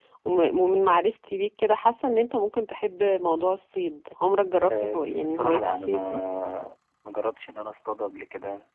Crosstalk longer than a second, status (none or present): present